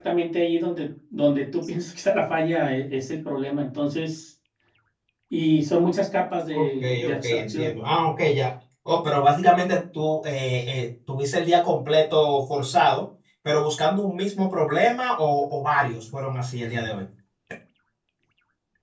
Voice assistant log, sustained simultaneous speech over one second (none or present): present